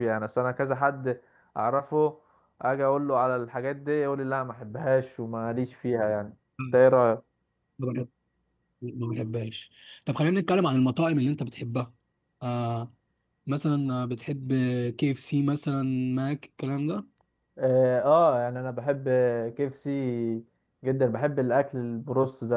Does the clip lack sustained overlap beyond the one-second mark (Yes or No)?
Yes